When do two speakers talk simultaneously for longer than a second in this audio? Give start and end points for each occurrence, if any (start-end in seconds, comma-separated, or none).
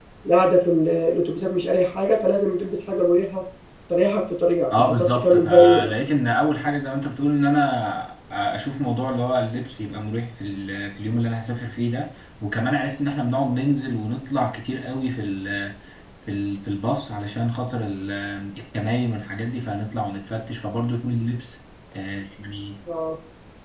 4.7-5.9